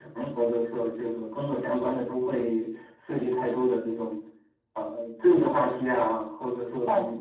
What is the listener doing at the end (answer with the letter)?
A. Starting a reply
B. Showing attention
A